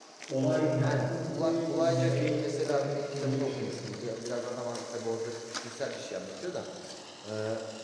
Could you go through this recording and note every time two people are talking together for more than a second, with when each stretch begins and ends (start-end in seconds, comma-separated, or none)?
0.8-3.7